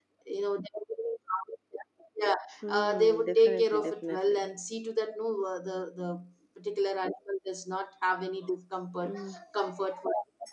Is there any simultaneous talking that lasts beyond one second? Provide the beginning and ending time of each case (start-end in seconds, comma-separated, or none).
2.7-4.5